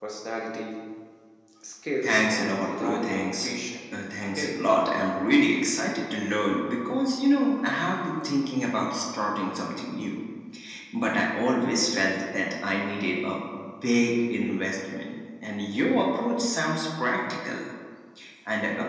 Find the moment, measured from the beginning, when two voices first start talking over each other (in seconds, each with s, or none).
2.0 s